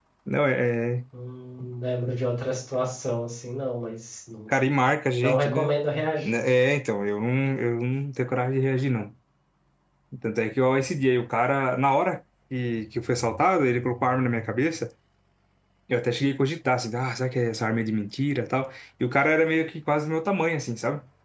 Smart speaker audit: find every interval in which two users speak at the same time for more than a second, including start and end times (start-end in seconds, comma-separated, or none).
none